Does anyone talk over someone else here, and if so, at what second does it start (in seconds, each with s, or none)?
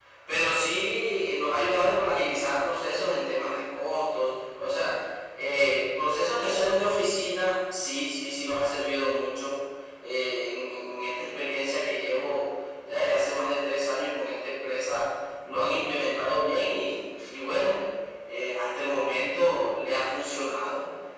none